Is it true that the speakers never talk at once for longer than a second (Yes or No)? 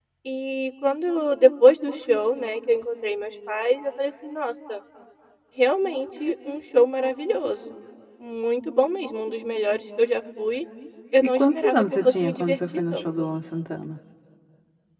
No